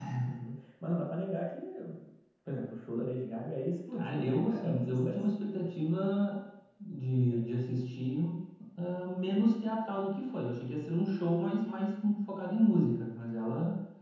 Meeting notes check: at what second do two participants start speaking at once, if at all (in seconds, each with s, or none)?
3.9 s